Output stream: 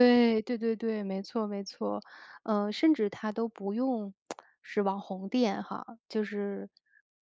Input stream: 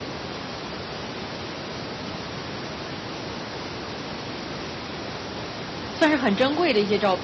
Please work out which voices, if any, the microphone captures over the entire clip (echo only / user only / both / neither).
user only